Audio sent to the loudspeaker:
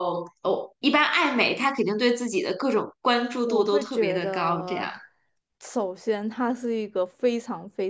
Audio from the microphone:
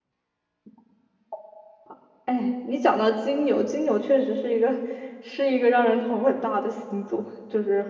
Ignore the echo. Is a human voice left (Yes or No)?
Yes